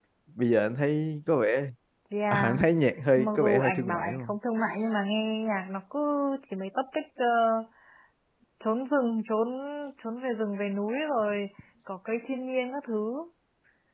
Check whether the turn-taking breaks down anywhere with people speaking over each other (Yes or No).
Yes